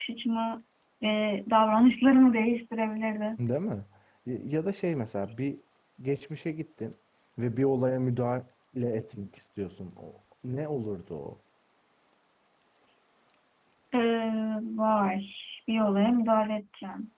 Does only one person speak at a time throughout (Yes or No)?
Yes